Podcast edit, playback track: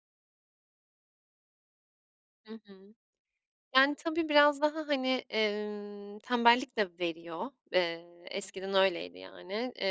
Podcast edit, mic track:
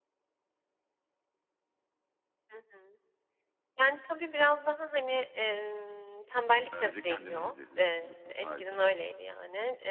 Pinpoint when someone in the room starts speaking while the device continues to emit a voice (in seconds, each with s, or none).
6.7 s